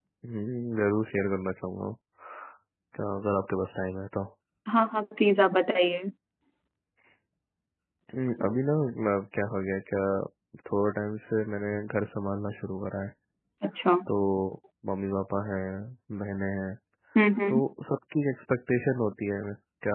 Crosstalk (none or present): none